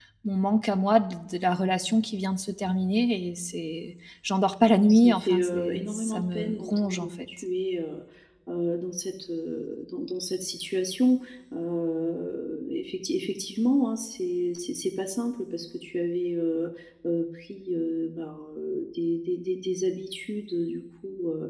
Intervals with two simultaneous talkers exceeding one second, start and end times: 4.7-7.1

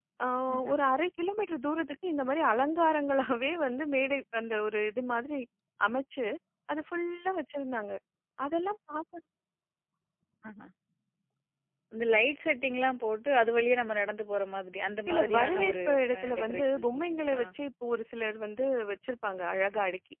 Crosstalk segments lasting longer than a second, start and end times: 15.4-17.4

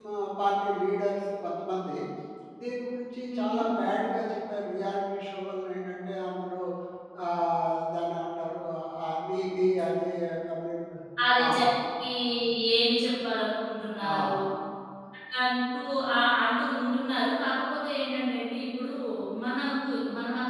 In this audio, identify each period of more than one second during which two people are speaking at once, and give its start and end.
none

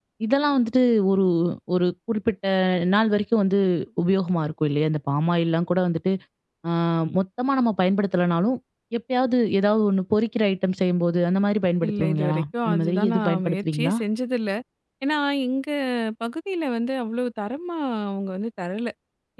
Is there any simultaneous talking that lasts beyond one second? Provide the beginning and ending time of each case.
11.8-13.9

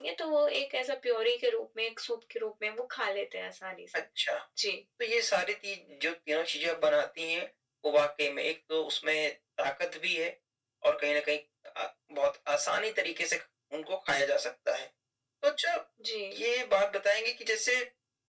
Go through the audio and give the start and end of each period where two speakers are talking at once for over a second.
none

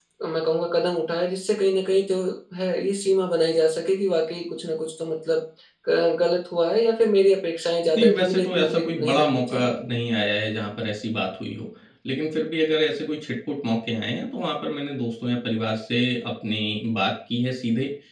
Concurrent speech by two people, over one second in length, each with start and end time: 8.0-9.7

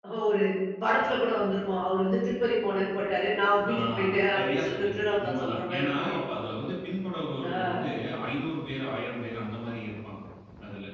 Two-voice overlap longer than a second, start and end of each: 4.4-6.1

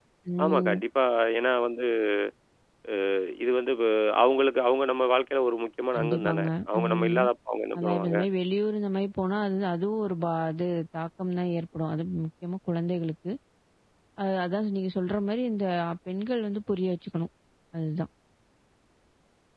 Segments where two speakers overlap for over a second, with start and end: 6.0-7.2

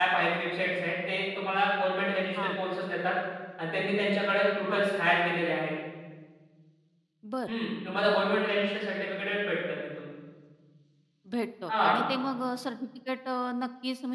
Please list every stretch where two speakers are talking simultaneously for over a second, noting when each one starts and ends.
none

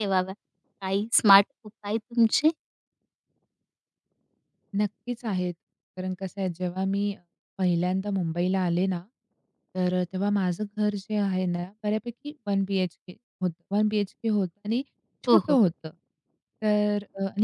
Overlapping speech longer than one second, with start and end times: none

